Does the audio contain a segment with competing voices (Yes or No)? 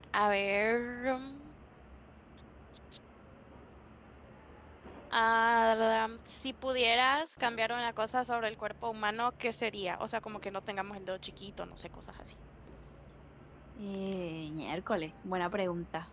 No